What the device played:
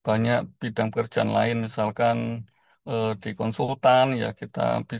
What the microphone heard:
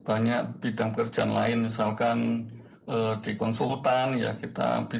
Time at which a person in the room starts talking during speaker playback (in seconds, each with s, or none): none